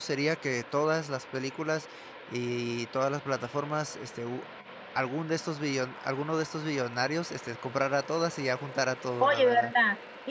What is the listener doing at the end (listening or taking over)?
taking over